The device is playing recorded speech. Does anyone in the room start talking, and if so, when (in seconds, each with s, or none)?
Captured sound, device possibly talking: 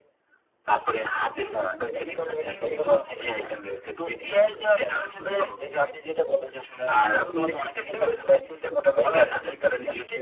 none